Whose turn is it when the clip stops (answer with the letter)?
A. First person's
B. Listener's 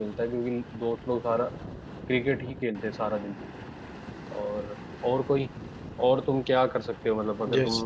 B